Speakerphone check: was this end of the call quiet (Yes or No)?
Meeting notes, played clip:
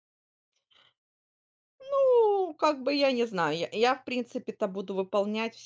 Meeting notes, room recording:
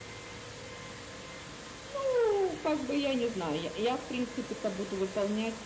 Yes